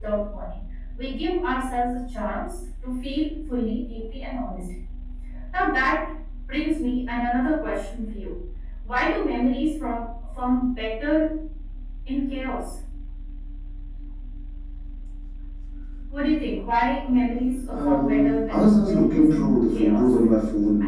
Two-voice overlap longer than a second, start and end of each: 17.7-20.1

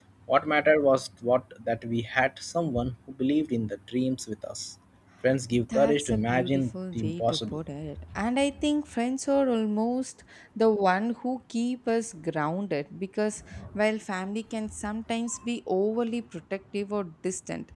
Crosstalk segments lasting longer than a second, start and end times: 5.7-7.6

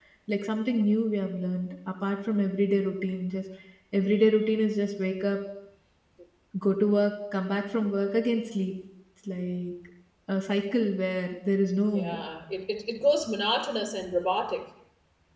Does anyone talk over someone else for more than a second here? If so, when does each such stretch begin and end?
none

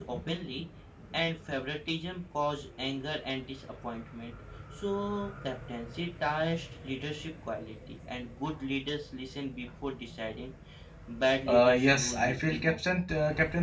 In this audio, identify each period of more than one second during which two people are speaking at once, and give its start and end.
11.5-12.8

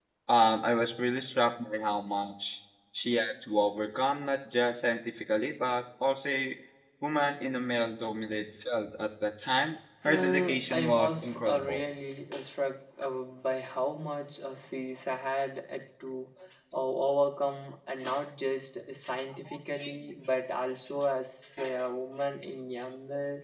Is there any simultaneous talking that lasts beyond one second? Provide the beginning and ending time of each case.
10.0-11.9

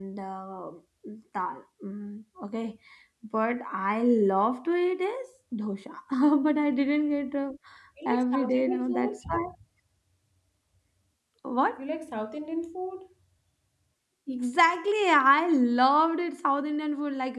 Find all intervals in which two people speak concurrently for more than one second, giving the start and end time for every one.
8.1-9.4

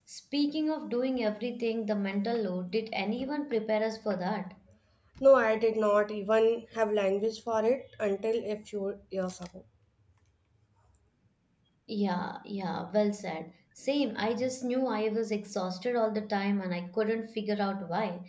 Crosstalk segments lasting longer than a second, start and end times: none

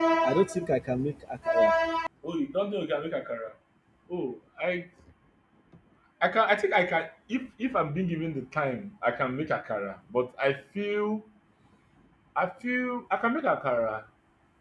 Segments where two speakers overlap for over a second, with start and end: none

